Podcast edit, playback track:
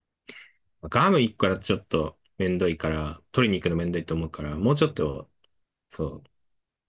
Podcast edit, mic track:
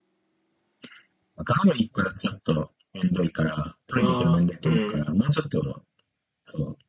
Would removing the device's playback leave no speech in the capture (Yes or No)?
No